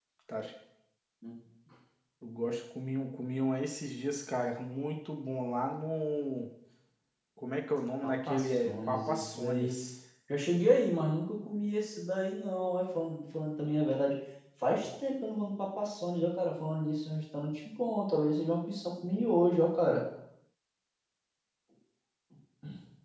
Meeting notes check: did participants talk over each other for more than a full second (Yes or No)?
Yes